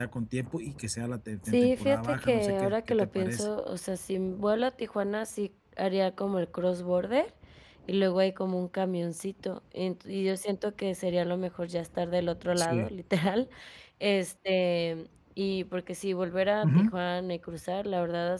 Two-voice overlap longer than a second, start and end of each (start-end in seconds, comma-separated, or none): 1.4-3.5